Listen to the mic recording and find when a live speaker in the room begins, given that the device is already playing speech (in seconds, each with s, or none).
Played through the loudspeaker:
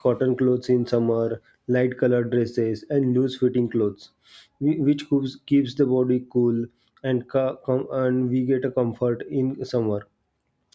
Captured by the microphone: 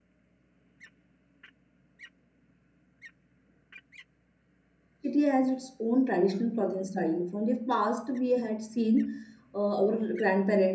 5.0 s